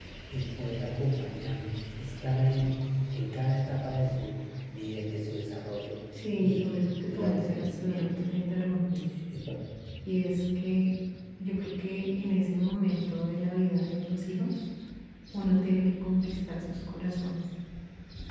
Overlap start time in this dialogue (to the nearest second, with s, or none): 6 s